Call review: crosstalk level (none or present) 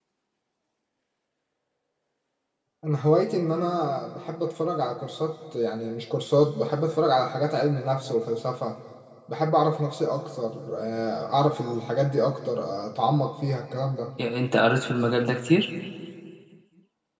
none